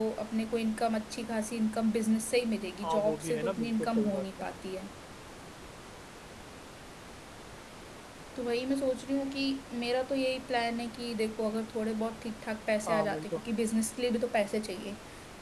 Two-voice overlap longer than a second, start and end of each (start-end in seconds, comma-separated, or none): 2.8-4.2